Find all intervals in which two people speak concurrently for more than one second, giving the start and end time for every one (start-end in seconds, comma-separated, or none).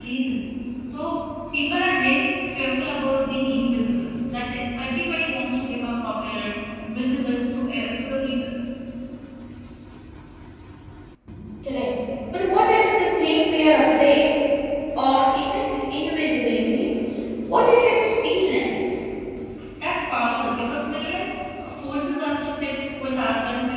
none